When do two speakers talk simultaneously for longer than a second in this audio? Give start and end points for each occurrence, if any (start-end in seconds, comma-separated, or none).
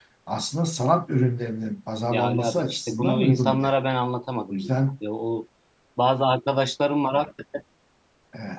2.1-3.7